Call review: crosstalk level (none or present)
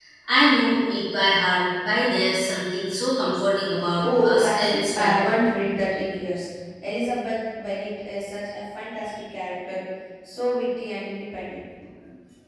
present